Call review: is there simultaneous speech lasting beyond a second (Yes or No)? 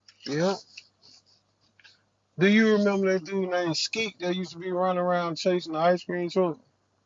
No